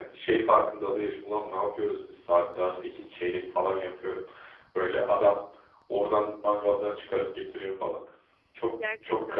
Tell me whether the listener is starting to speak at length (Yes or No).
Yes